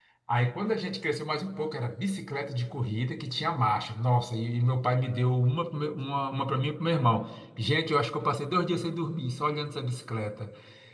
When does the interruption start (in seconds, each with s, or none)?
none